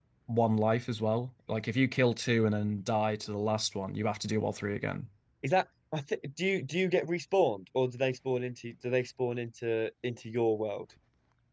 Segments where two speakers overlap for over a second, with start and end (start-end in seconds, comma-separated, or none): none